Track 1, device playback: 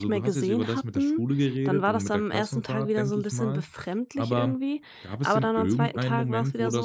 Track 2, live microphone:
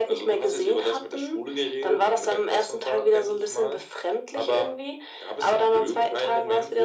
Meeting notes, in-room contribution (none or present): none